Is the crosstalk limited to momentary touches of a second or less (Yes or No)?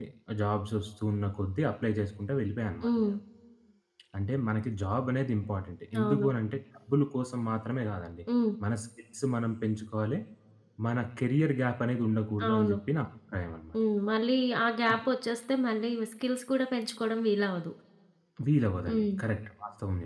Yes